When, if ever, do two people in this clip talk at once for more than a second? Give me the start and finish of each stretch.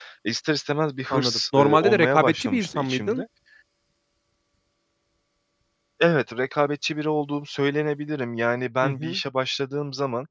1.1-3.2

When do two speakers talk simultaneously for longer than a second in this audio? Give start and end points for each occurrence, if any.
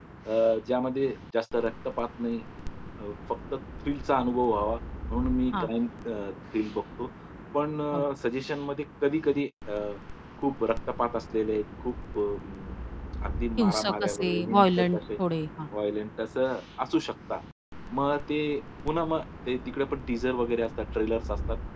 13.6-15.0

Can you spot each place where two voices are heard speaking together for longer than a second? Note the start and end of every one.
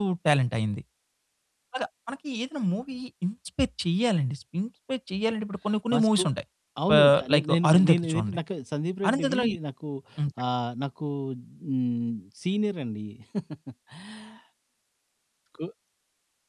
7.0-8.4

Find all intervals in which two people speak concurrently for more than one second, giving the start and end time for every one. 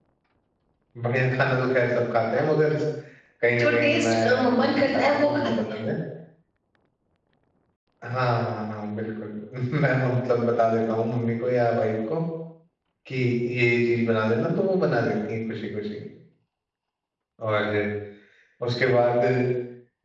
3.6-5.8

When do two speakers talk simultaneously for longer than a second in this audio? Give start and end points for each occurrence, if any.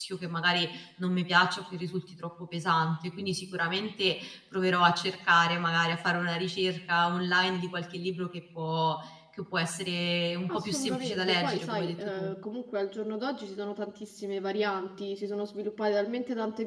10.5-12.3

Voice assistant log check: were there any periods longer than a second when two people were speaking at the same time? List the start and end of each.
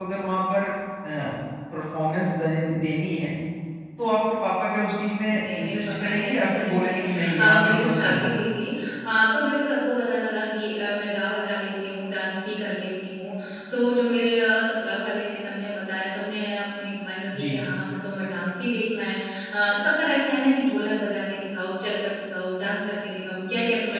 5.3-8.3

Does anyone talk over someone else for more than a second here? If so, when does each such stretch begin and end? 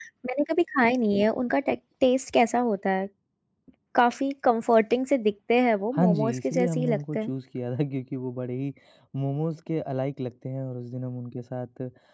5.9-7.3

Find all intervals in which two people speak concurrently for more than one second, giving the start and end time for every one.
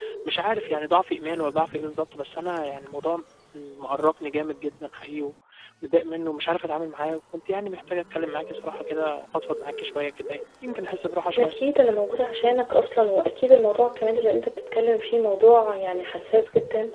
none

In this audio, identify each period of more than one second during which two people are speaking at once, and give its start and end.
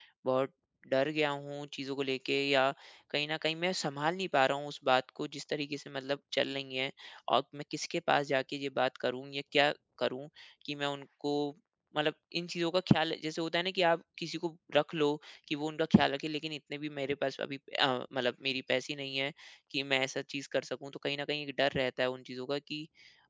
none

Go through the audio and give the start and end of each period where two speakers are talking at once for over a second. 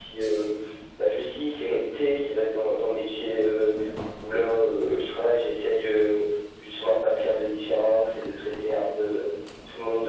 none

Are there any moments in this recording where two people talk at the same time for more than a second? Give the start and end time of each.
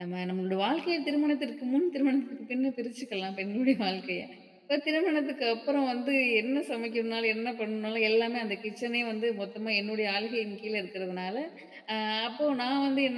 none

